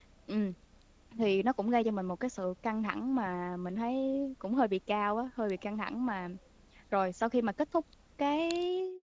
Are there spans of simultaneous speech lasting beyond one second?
No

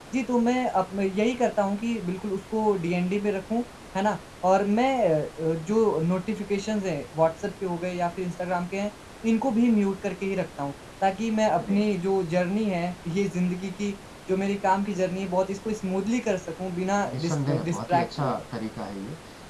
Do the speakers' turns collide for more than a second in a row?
Yes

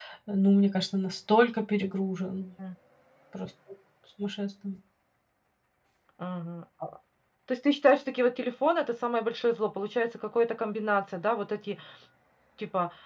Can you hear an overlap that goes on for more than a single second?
No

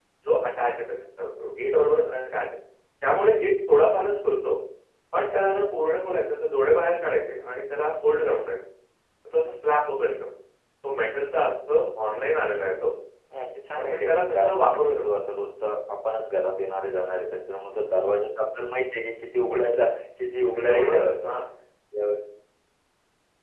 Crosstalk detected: Yes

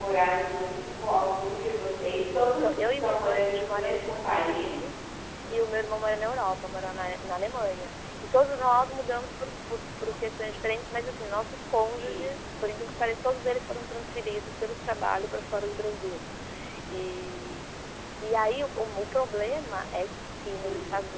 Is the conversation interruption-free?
No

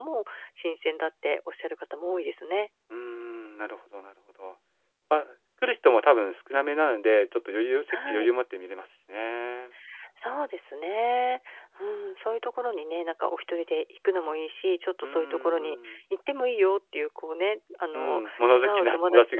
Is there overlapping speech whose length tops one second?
Yes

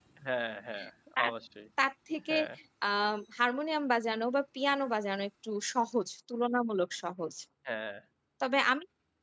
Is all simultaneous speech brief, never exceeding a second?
Yes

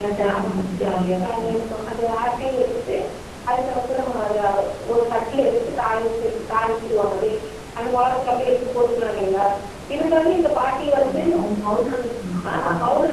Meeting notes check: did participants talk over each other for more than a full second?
No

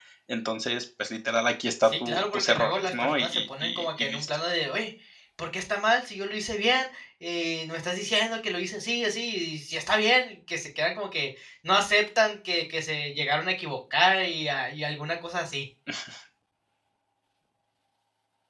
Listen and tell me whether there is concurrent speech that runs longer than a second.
Yes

